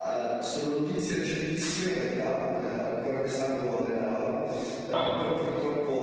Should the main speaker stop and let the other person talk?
No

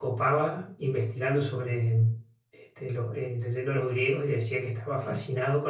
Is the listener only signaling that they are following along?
Yes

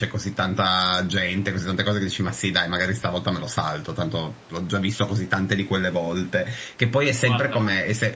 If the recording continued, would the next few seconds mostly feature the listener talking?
No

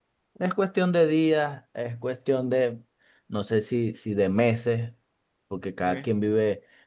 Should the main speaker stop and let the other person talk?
No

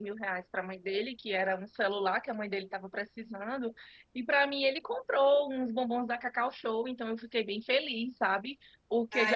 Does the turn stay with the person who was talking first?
No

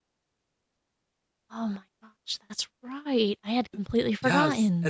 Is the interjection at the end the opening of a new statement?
Yes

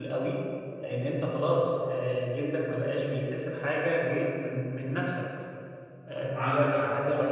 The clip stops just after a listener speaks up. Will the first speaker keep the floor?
Yes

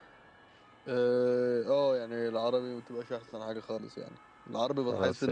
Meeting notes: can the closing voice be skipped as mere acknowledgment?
Yes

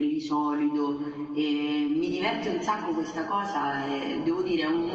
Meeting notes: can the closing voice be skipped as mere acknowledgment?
Yes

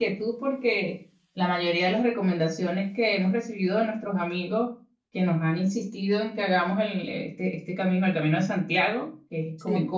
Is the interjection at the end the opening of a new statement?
No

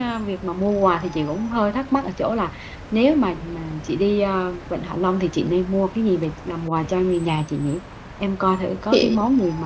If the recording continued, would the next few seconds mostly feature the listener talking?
No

